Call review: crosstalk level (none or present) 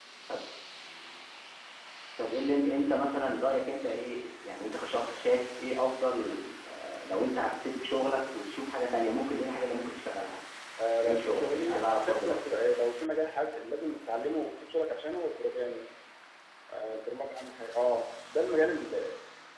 present